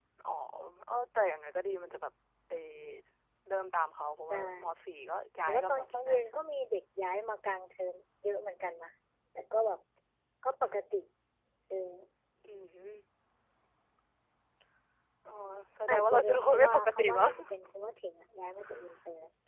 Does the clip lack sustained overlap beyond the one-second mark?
No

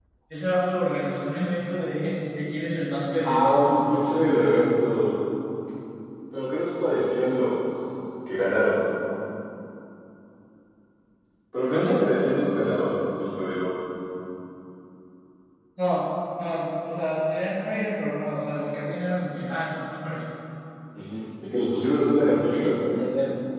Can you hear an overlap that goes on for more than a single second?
Yes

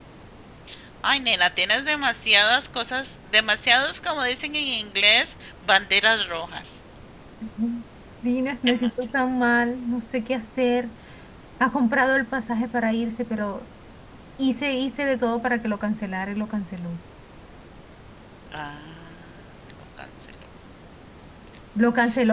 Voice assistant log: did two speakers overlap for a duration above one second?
No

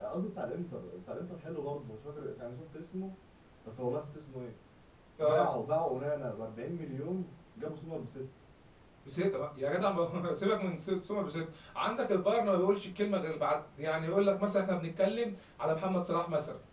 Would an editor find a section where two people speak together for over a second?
No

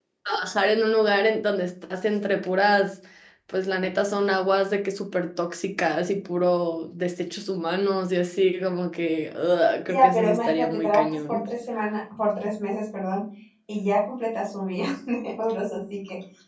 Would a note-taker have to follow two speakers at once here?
Yes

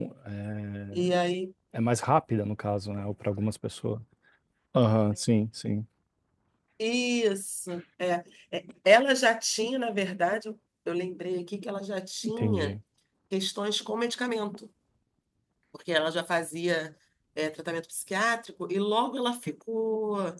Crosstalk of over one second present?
No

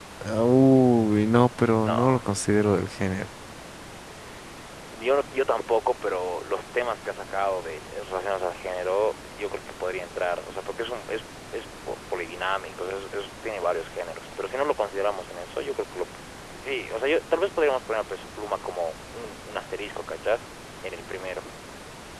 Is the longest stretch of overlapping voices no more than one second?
Yes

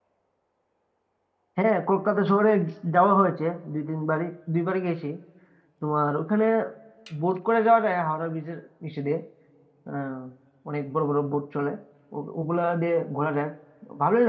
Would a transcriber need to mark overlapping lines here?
No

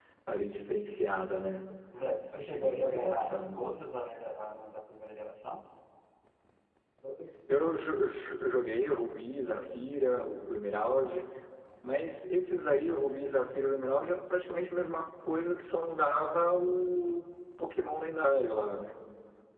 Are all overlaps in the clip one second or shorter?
No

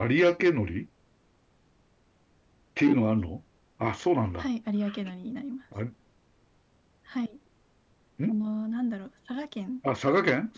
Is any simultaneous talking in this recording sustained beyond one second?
No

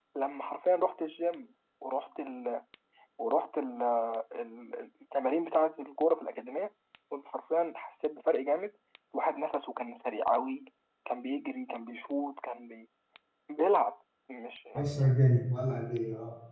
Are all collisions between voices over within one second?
Yes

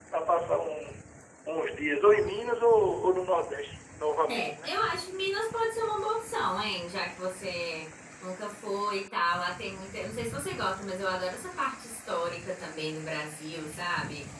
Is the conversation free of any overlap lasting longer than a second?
Yes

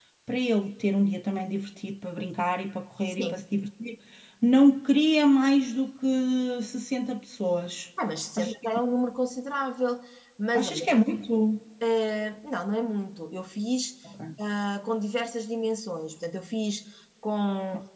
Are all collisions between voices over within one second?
Yes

